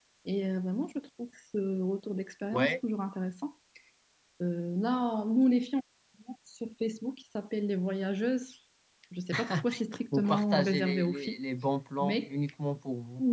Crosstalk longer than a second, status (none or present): present